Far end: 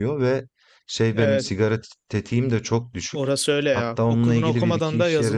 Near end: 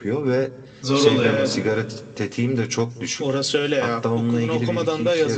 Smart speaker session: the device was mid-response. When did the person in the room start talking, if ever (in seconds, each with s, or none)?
0.8 s